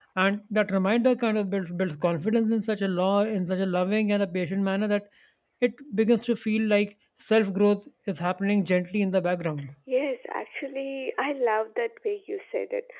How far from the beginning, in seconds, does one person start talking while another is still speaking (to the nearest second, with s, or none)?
none